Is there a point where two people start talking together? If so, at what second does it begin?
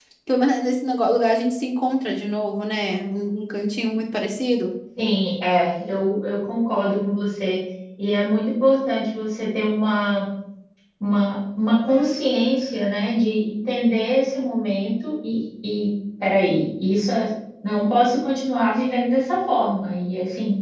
none

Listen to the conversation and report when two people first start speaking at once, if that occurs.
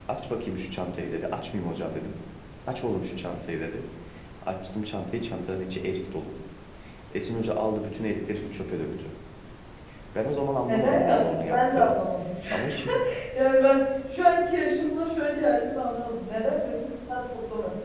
11 s

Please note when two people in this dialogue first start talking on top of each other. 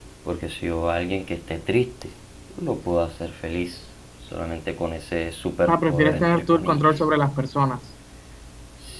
6 s

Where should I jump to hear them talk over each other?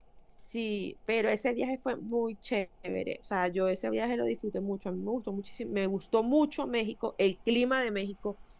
none

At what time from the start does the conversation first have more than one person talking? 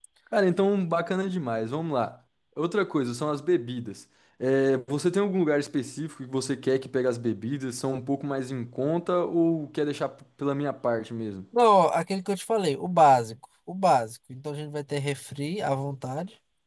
none

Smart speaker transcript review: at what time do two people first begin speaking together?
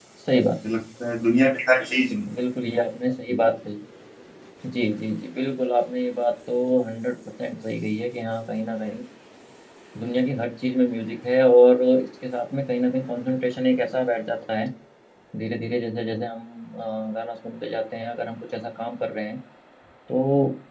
none

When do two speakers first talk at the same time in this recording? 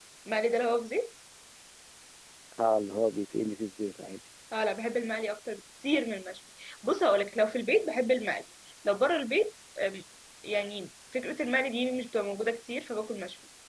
none

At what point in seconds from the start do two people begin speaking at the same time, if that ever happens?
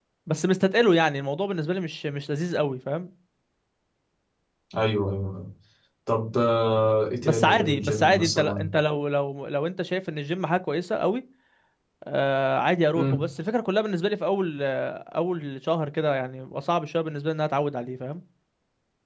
7 s

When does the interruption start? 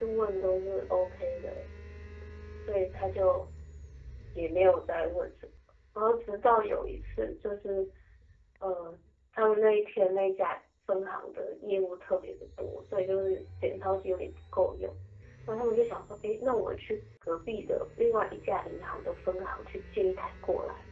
none

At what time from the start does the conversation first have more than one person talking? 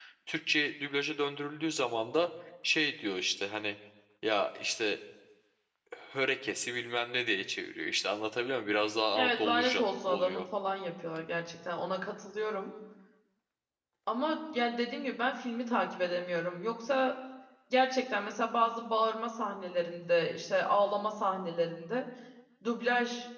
9 s

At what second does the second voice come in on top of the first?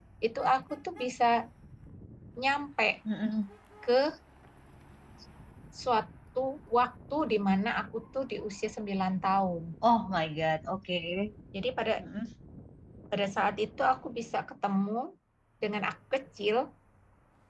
none

